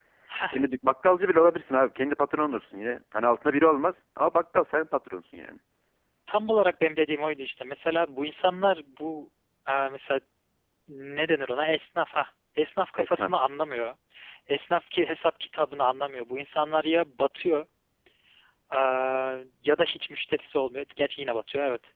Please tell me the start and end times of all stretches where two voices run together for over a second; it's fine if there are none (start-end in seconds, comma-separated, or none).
none